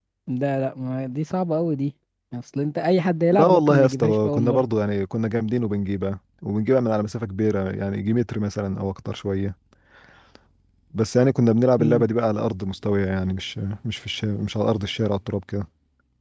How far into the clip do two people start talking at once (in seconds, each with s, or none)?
3.3 s